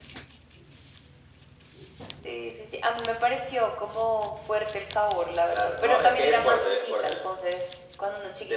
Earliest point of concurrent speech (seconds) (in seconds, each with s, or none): 5.5 s